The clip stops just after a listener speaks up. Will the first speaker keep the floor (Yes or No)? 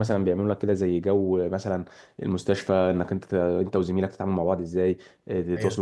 Yes